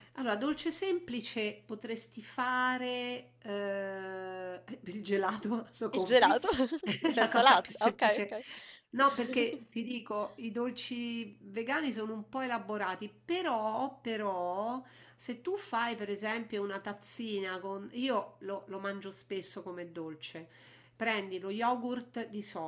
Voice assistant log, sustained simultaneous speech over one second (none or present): present